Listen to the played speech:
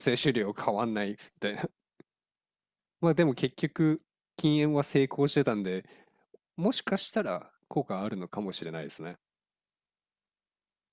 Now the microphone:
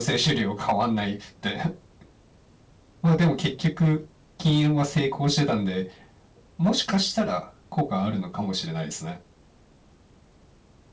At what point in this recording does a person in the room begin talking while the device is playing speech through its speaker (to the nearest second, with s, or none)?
none